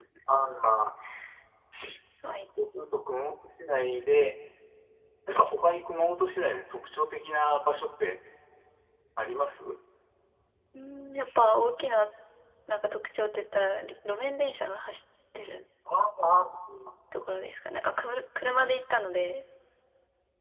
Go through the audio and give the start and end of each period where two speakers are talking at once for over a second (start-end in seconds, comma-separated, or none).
none